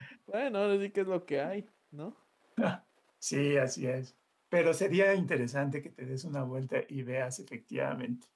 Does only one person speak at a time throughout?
Yes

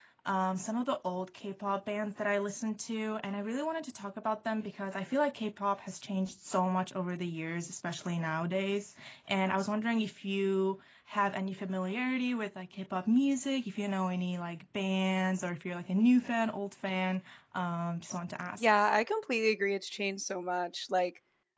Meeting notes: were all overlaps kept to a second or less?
Yes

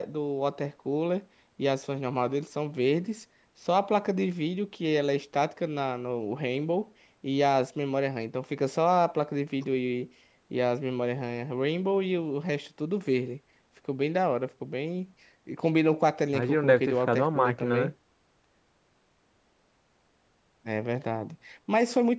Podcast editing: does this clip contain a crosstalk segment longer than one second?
Yes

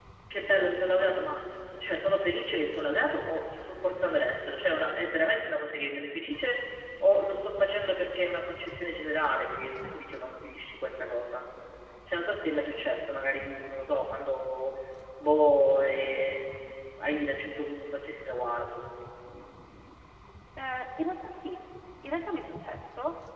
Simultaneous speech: No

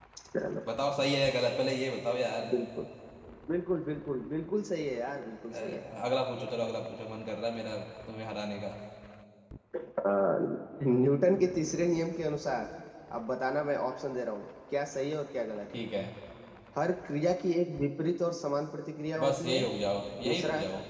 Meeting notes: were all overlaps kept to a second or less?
Yes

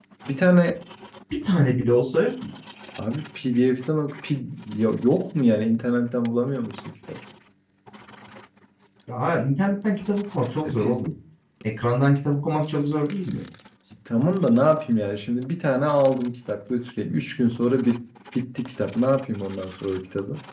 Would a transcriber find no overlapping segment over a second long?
Yes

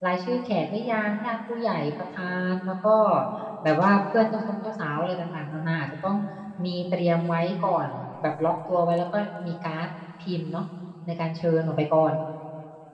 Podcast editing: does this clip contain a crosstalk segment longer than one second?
No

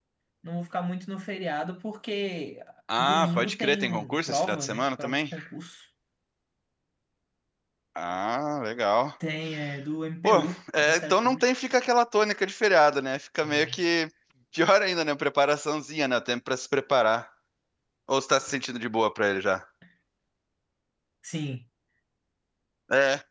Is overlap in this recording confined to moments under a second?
No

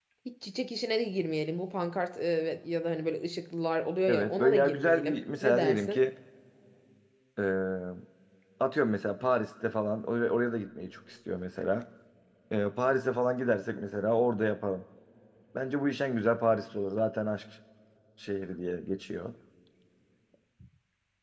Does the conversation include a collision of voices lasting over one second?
Yes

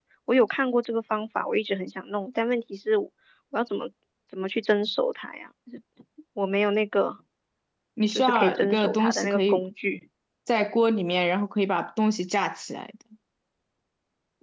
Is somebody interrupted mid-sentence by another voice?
Yes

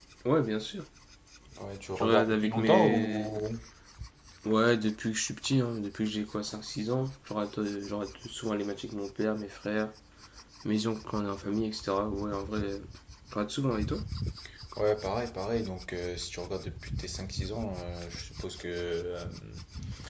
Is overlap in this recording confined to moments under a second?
No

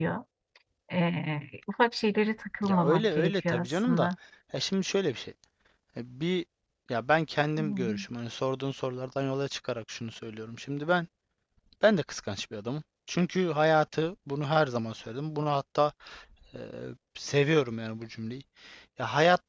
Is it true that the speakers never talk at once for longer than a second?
No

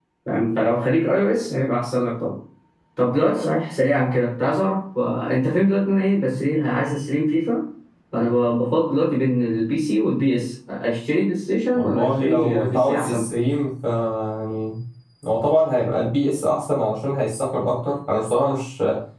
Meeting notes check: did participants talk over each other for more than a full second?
Yes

